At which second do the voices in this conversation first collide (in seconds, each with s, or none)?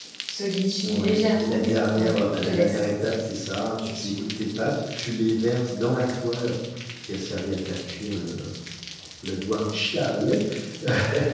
0.8 s